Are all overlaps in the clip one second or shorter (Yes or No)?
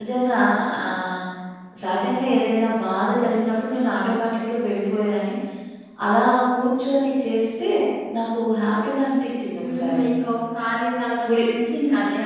Yes